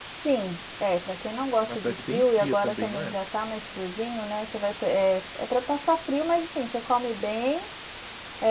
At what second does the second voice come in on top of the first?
1.6 s

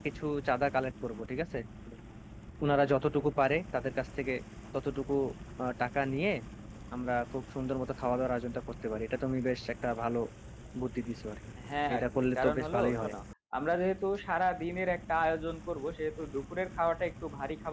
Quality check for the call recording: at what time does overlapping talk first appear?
11.9 s

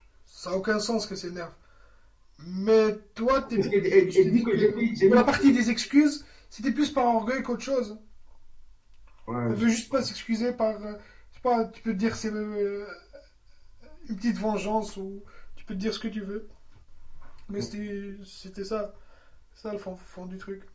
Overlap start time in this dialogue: 4.1 s

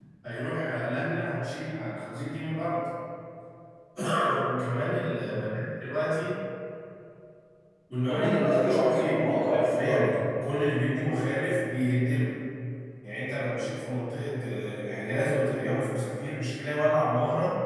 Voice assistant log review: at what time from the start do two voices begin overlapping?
8.1 s

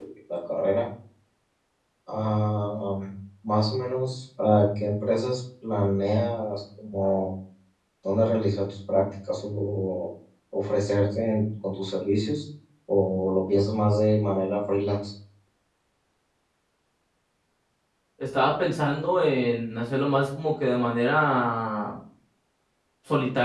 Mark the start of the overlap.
none

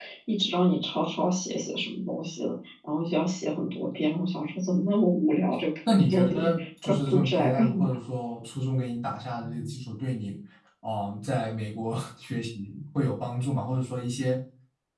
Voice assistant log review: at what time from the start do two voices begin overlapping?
5.9 s

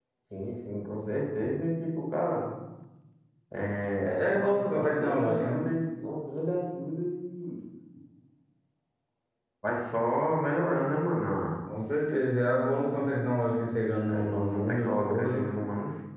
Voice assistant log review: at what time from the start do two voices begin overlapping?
4.0 s

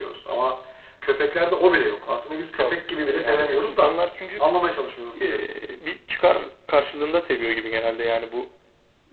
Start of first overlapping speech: 2.6 s

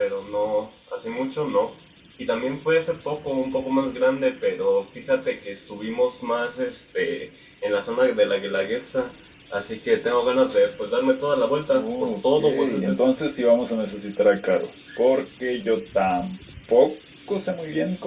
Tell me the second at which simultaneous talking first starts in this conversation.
11.7 s

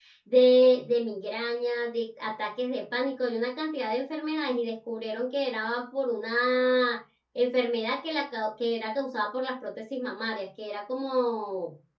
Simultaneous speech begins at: none

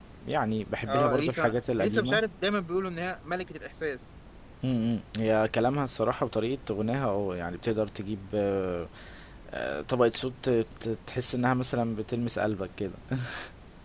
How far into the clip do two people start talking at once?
0.9 s

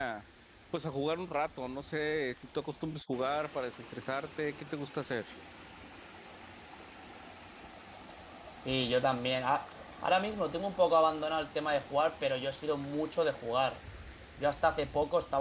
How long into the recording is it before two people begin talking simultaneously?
none

